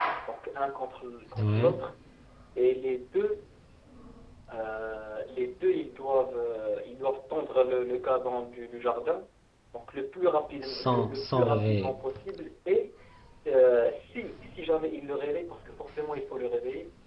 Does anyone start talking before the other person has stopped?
Yes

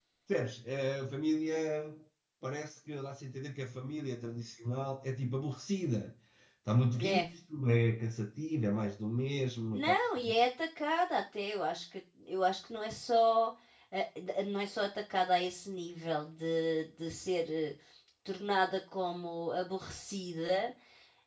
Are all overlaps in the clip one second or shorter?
Yes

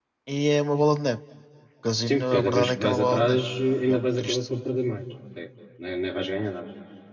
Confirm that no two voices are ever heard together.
No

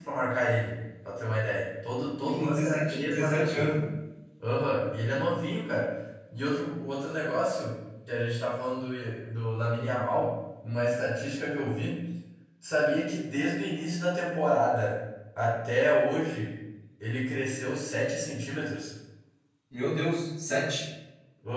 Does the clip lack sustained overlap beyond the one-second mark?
No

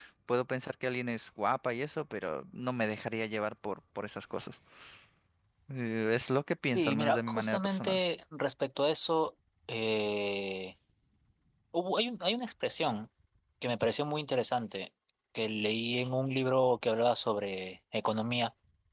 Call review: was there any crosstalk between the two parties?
Yes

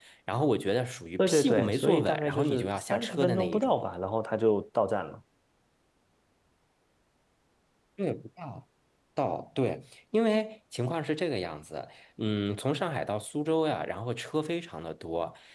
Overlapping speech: Yes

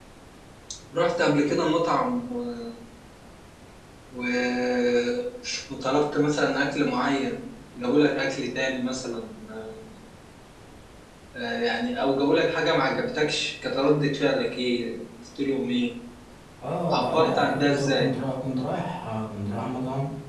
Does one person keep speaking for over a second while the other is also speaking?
Yes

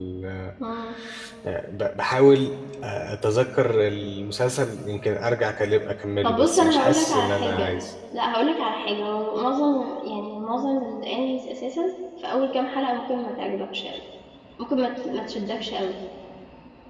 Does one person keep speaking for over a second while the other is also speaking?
Yes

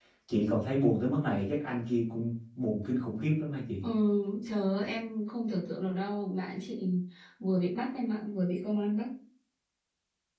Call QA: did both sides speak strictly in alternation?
Yes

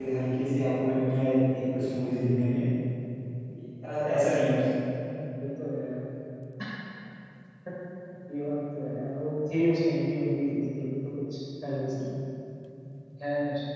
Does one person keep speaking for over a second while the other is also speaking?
No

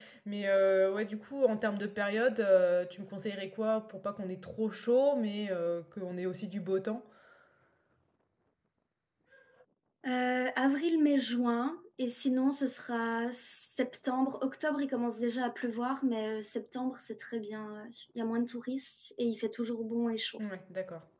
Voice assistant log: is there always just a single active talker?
Yes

